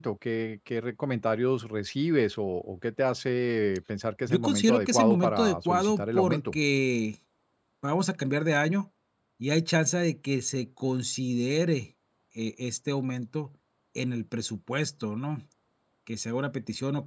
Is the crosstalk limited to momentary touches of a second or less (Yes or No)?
No